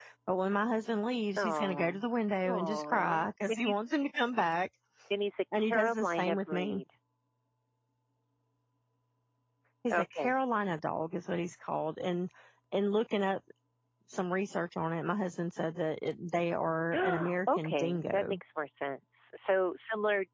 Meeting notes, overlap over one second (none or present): present